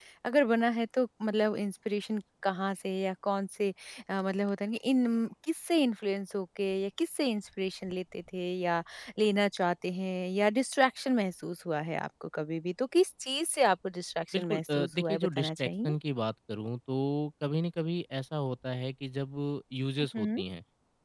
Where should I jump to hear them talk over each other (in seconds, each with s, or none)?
14.3 s